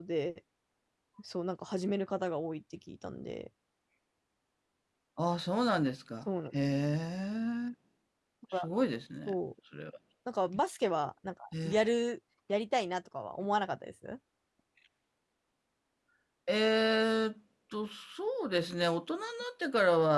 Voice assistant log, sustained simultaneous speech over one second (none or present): none